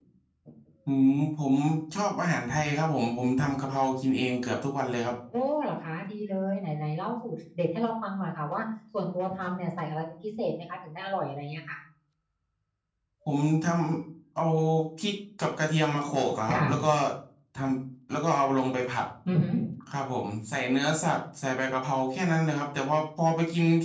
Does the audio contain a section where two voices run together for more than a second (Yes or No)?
No